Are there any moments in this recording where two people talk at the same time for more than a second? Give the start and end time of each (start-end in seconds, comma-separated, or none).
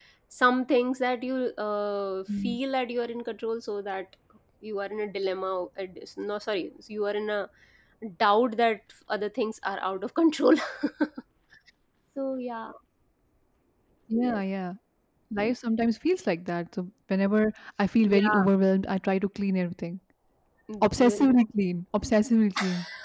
none